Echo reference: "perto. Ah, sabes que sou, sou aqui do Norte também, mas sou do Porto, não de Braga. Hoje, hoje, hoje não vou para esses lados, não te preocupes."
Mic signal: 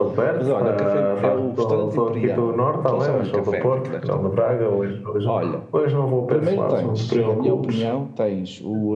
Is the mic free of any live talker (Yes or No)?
No